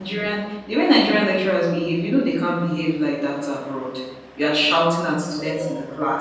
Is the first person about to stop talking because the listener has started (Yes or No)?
No